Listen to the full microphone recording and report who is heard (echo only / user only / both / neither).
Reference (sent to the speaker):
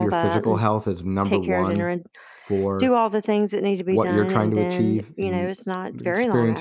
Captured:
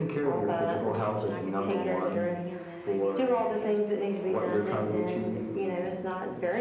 both